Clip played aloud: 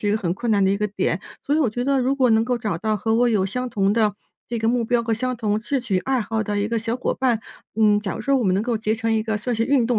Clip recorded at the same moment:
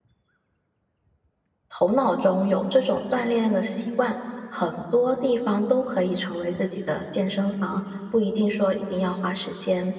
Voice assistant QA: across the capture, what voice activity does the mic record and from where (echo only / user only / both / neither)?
user only